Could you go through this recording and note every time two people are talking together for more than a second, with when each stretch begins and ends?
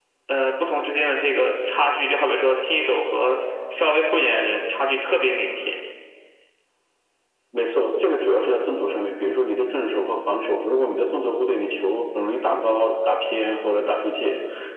none

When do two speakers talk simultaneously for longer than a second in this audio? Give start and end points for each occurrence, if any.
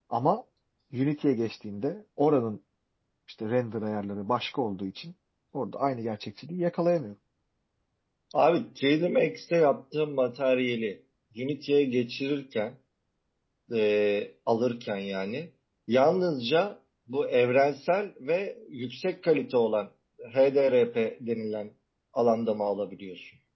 none

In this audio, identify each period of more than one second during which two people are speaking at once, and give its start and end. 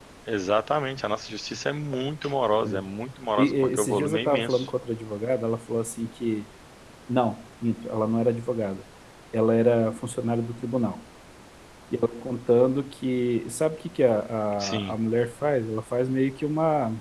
3.4-4.7

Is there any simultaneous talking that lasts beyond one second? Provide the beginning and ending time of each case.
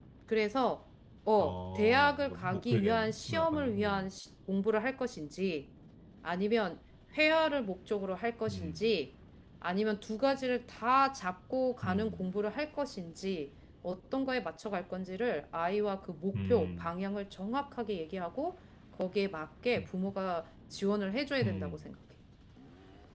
1.4-4.1

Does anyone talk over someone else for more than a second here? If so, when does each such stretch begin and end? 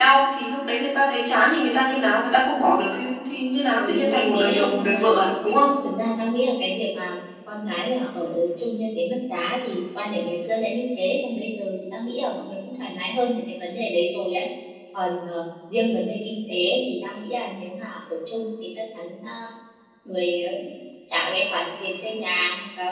3.8-5.3

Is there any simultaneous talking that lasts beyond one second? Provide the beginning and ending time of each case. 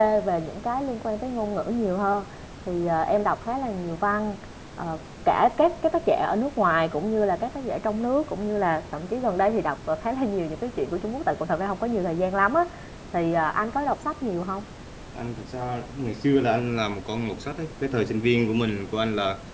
none

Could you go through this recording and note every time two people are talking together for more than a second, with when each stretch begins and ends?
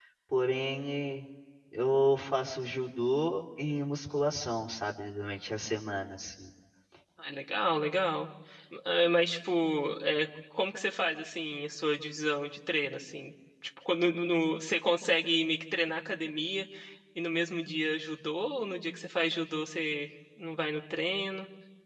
none

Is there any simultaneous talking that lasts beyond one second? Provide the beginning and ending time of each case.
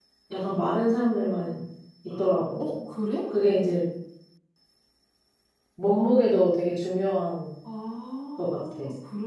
none

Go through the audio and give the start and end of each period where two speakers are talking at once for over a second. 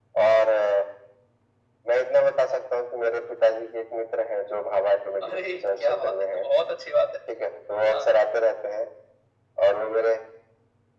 5.2-6.5

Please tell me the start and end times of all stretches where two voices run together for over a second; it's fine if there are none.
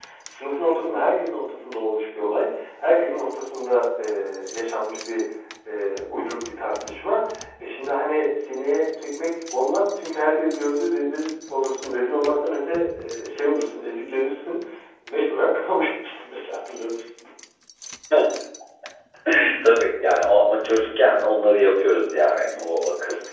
none

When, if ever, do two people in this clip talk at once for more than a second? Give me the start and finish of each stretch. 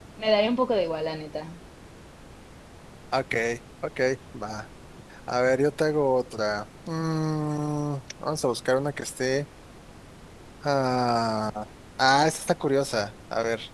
none

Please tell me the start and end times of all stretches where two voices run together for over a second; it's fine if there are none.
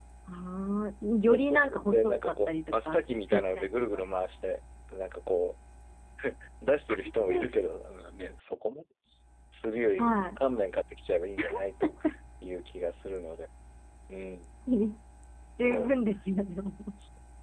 1.3-4.0

